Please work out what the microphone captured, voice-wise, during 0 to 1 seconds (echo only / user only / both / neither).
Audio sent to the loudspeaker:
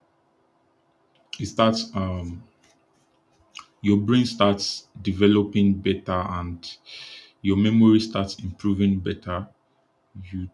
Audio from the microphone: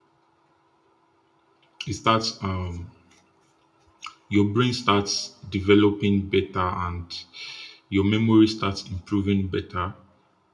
neither